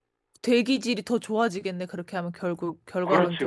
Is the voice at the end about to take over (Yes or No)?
Yes